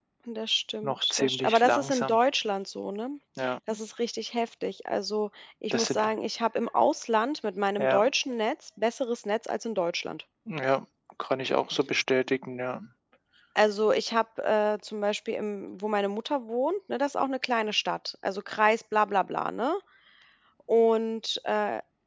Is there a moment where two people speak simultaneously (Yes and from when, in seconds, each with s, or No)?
Yes, from 0.8 s